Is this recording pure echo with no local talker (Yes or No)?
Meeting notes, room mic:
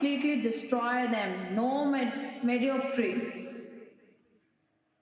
Yes